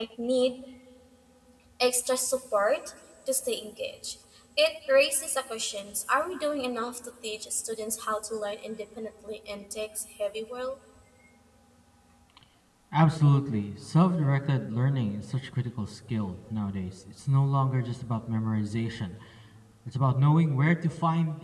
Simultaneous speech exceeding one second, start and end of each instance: none

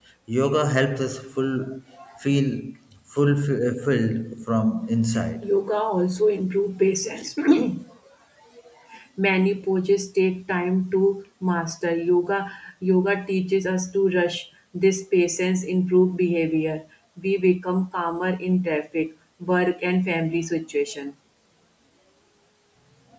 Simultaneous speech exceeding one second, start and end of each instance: none

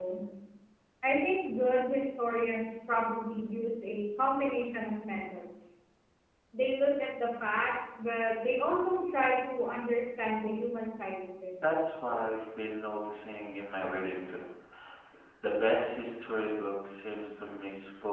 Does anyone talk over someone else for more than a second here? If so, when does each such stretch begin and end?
none

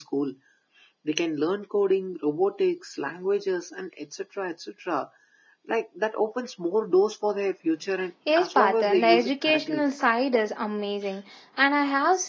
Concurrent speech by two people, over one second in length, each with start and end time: 8.4-9.8

